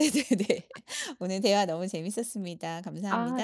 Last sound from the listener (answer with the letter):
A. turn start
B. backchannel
A